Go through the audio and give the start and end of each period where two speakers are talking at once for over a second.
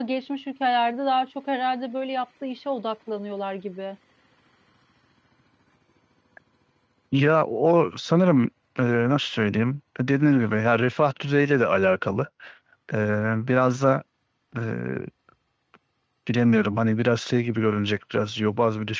none

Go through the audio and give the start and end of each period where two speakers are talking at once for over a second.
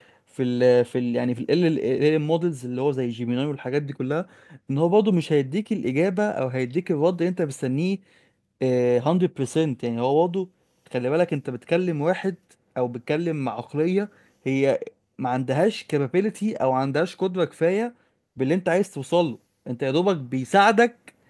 none

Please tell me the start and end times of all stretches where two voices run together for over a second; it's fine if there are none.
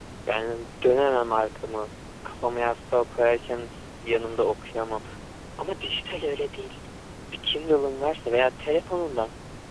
none

